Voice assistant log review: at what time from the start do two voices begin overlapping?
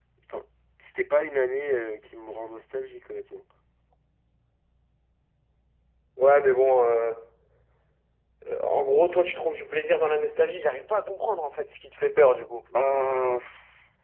none

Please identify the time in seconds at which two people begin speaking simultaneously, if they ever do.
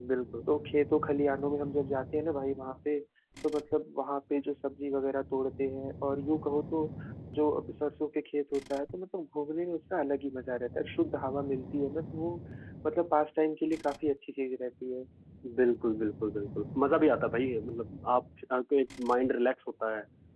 none

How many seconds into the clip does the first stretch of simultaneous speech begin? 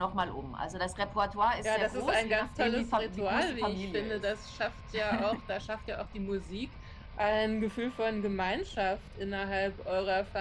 1.6 s

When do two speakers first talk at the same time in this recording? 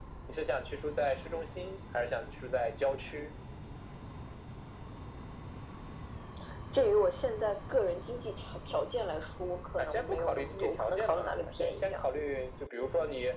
9.8 s

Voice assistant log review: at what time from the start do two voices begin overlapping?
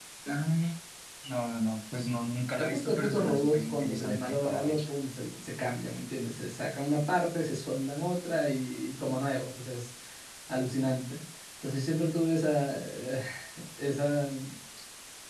2.6 s

